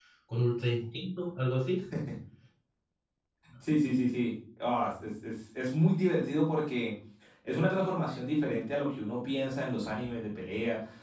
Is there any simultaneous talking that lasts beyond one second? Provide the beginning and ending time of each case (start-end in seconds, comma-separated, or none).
none